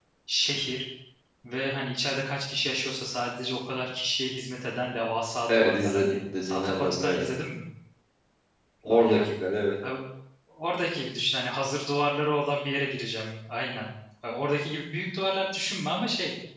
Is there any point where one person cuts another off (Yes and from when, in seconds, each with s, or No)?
Yes, from 5.5 s